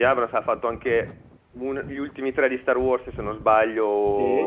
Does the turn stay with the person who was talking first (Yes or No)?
No